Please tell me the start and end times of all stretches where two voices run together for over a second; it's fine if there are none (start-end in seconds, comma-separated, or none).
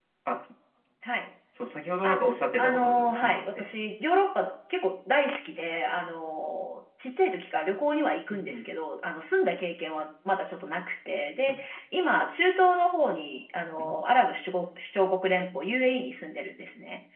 2.0-3.7